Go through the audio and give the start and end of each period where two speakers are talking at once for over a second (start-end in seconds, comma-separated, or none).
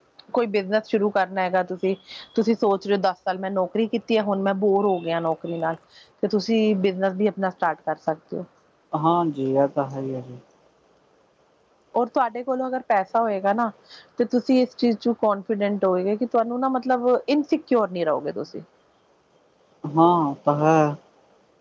none